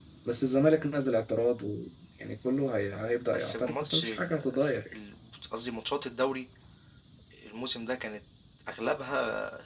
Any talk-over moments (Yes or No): Yes